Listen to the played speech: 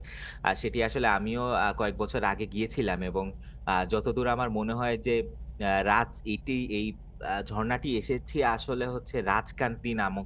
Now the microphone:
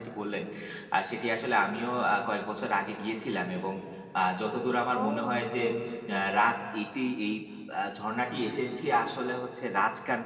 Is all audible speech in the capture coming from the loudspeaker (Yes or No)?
No